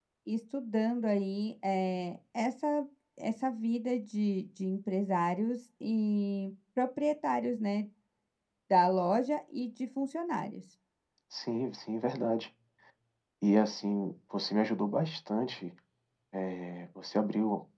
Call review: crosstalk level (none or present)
none